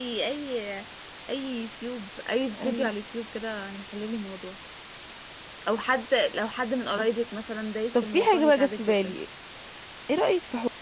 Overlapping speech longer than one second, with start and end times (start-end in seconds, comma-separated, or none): 7.9-9.1